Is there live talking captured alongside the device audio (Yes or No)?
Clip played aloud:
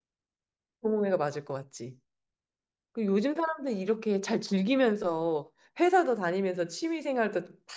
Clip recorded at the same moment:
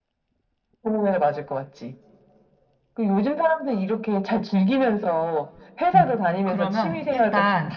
Yes